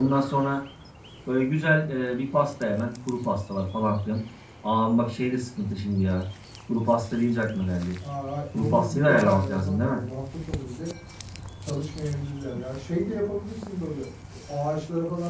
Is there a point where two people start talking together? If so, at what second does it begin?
8.5 s

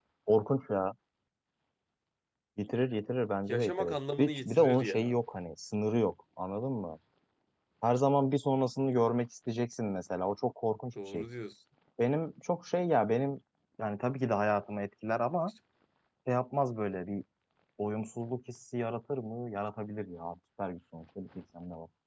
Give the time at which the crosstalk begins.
3.5 s

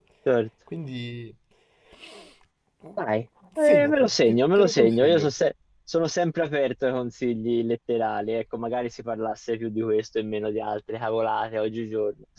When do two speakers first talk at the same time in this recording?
3.6 s

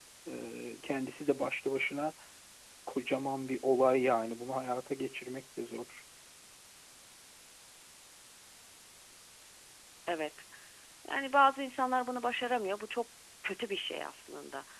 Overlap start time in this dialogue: none

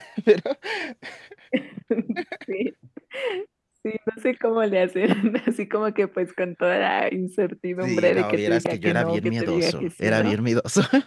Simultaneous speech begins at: 7.8 s

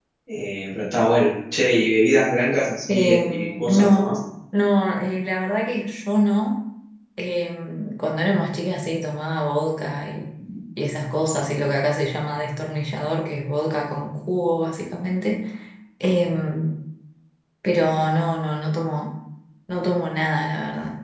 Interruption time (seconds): 2.9 s

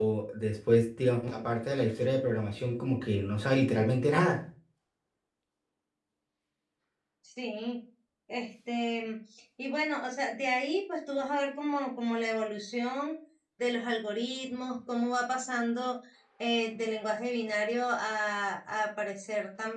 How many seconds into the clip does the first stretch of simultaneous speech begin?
none

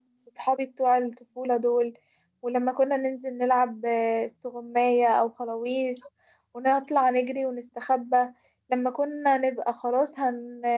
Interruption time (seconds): none

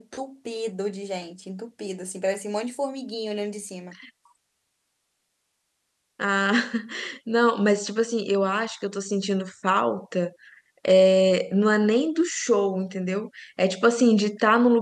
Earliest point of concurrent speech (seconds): none

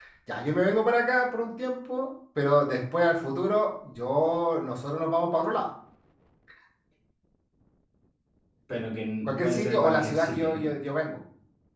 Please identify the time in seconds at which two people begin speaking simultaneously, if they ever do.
9.3 s

